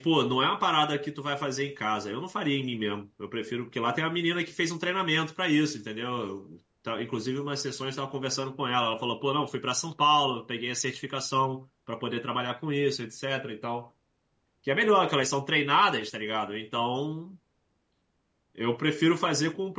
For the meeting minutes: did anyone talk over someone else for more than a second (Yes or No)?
No